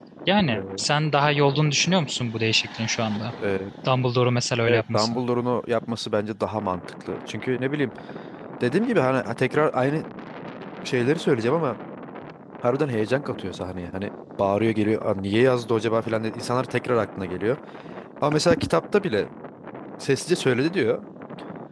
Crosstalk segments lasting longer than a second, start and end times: none

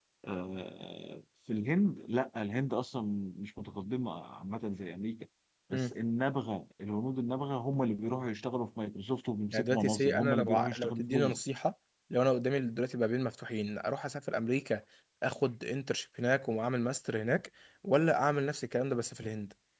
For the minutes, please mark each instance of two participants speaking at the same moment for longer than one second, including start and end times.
9.5-11.4

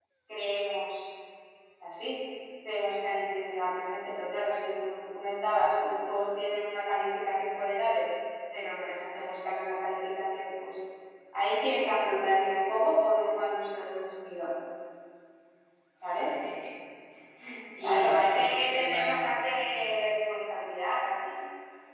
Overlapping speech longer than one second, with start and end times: 17.8-19.3

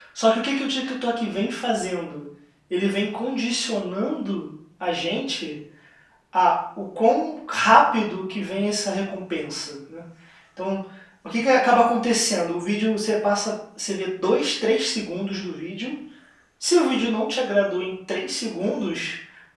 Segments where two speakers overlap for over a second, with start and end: none

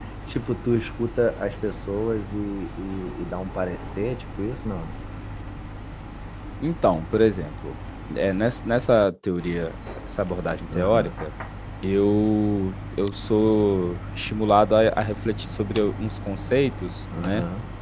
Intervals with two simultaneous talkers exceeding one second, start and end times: none

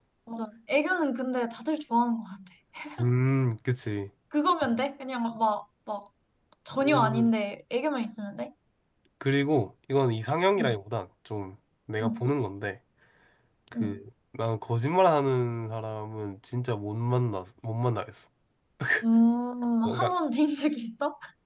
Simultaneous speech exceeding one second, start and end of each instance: none

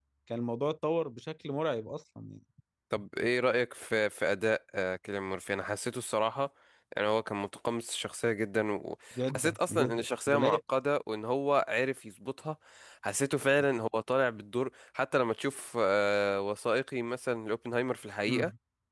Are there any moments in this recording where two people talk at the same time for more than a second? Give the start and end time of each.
9.2-10.6

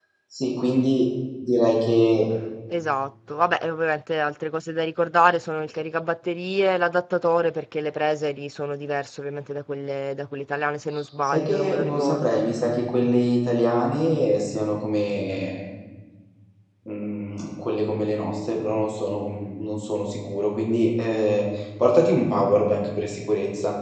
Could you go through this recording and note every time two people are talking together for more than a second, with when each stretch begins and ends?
11.2-12.4

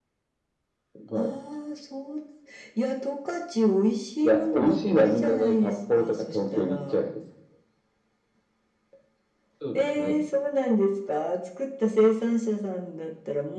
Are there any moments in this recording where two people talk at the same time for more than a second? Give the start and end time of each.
4.2-7.0

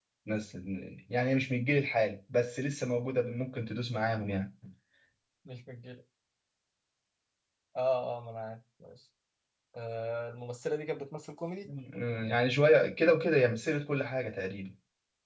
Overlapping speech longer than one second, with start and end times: none

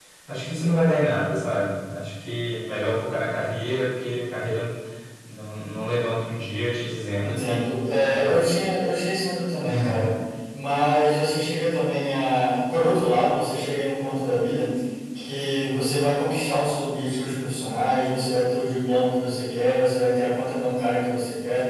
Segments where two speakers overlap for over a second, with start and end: 7.2-8.5

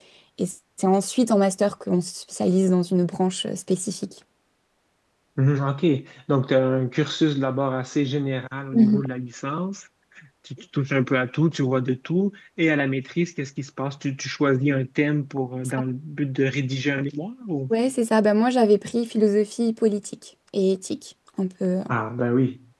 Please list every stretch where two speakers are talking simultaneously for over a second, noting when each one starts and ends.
none

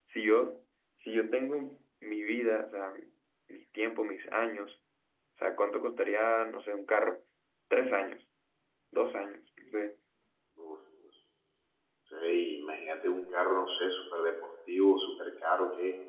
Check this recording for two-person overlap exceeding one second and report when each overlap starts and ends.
none

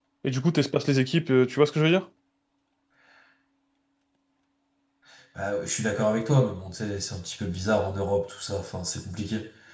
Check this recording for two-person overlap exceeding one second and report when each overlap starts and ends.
none

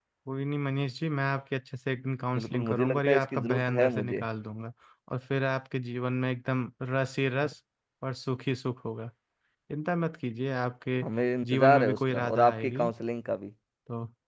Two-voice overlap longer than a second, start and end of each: 2.4-4.2, 11.5-12.9

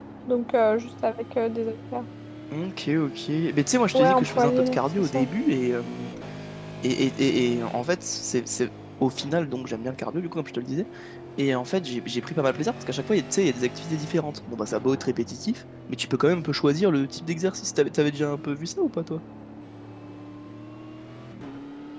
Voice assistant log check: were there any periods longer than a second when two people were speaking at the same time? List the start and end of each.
3.9-5.2

